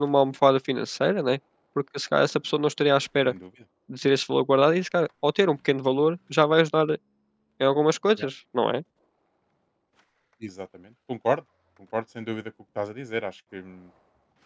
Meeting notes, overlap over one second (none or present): none